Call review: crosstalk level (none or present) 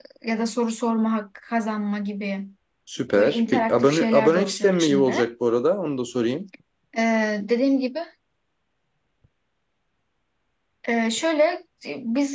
present